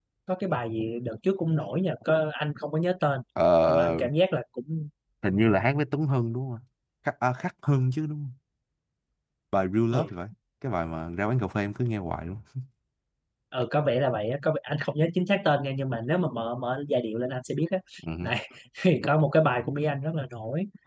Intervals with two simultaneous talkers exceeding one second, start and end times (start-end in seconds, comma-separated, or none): none